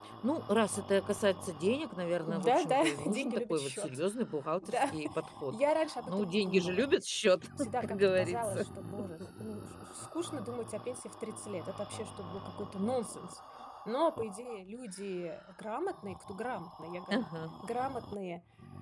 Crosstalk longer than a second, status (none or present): present